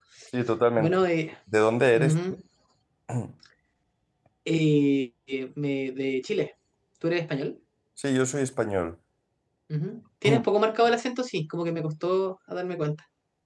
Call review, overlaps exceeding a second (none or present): none